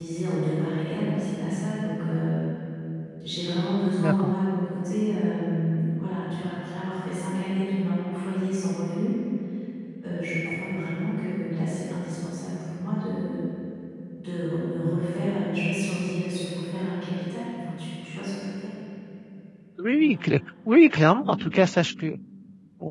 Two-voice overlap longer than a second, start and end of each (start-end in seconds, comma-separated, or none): none